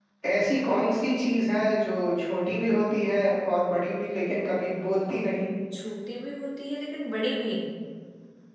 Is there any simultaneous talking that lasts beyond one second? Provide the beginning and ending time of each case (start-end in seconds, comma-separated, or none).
none